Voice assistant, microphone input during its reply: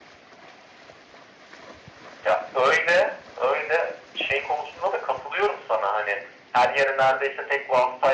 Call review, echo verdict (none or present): present